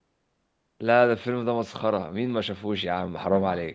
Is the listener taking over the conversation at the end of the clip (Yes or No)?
Yes